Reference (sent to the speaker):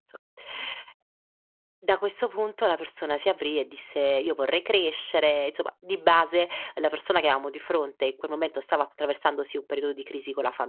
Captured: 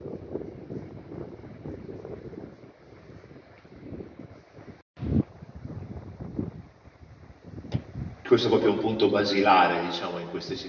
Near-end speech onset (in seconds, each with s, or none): 8.2 s